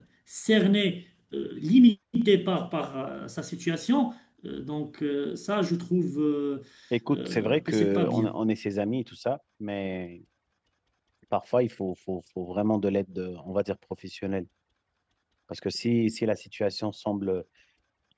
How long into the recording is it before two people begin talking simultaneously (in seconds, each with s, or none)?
7.1 s